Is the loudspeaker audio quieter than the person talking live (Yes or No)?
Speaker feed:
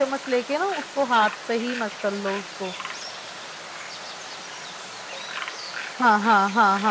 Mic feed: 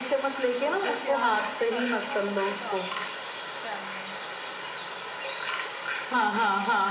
No